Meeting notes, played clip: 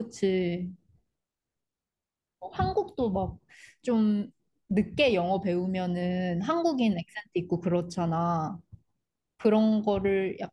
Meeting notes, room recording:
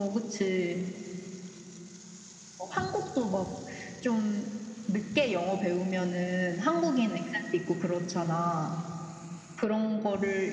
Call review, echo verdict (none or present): present